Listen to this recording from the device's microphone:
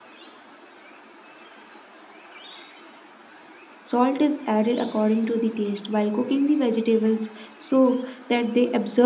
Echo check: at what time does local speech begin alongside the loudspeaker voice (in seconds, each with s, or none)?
3.8 s